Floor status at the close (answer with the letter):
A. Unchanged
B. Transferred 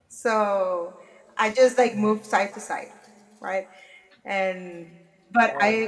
A